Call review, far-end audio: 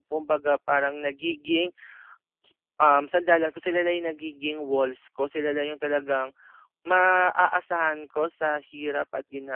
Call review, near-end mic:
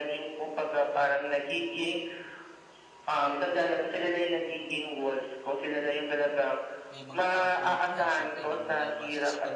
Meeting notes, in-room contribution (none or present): present